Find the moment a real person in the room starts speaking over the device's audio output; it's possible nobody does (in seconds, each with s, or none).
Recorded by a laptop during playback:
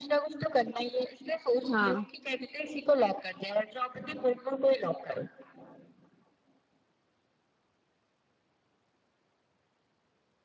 1.7 s